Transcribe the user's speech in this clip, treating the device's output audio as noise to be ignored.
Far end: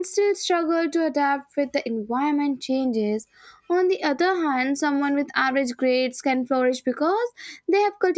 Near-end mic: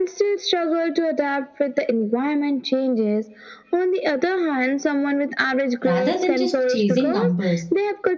rather than just chasing numbers.

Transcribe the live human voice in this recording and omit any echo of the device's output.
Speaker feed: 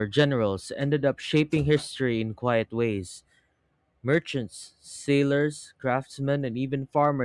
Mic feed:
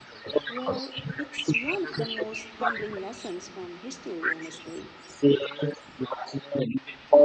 Well, it's one of the most humbling lessons from history, honestly.

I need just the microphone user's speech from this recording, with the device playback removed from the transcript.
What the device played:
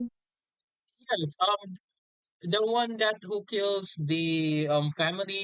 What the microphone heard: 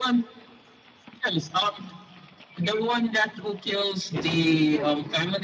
It's a true story.

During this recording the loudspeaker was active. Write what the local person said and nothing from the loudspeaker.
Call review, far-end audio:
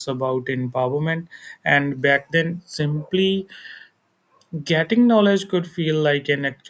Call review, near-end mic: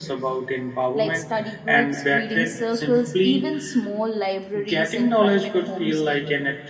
like study groups, reading circles, even small libraries in private homes

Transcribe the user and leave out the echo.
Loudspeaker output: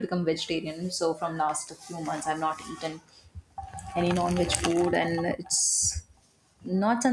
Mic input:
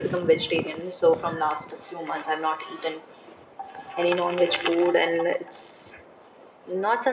none

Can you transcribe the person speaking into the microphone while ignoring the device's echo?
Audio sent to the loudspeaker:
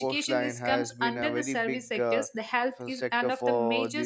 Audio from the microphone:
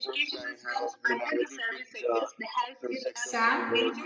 Sam?

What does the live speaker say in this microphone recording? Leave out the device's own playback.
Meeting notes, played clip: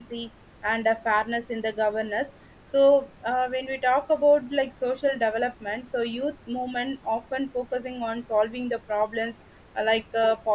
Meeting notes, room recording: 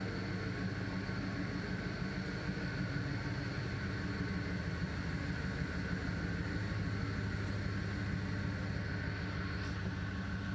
none

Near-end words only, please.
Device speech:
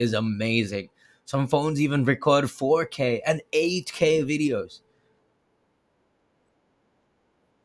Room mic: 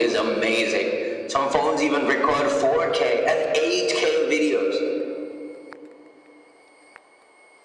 none

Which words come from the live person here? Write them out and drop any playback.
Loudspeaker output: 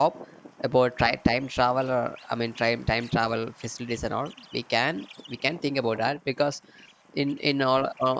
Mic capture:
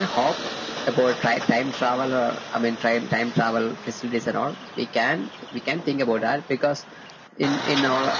none

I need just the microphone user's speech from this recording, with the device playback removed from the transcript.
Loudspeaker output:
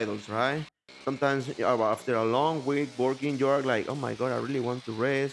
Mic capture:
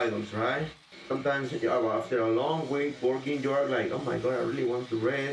none

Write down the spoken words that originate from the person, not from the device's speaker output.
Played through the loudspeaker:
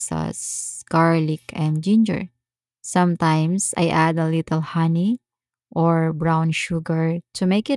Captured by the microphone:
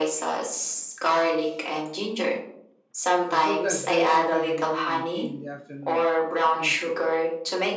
I sometimes drink coffee in the morning and tea in the afternoon, but mostly water.

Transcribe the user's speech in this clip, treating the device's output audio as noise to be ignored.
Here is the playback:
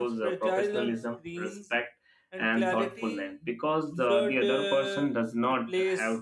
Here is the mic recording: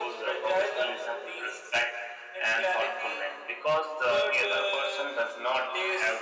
none

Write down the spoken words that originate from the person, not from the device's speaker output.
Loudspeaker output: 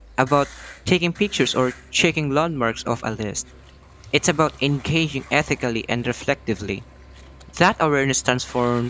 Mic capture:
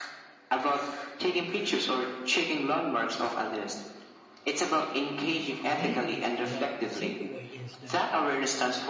maybe the the takeaway is that

